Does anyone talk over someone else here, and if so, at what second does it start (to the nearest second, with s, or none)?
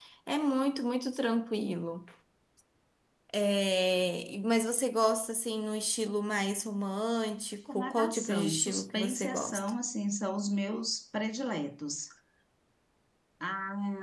8 s